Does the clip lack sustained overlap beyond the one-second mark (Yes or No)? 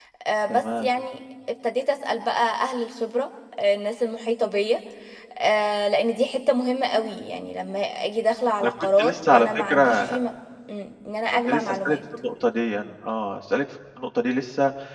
No